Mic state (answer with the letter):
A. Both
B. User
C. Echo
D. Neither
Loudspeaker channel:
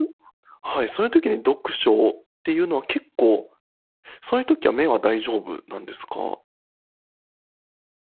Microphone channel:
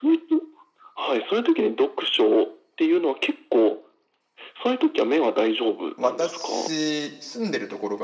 A